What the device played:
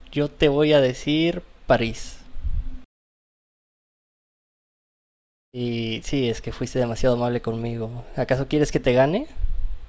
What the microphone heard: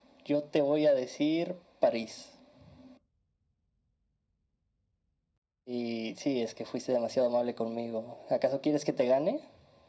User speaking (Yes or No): No